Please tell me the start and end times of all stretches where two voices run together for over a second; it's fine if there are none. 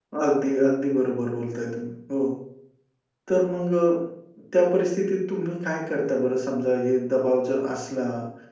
none

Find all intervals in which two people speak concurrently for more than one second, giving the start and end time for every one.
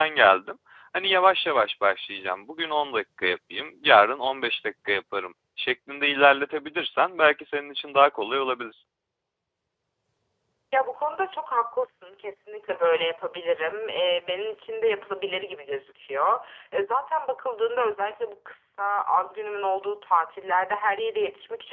none

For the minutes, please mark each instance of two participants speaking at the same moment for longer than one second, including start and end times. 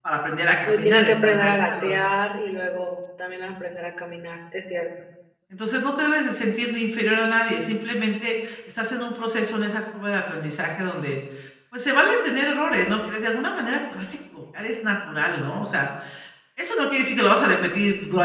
0.7-2.0

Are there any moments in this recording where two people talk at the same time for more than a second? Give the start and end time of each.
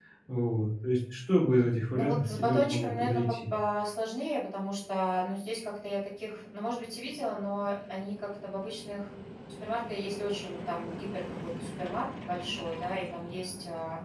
1.9-3.5

